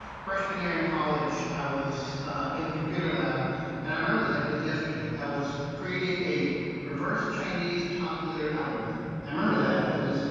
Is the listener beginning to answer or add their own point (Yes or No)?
No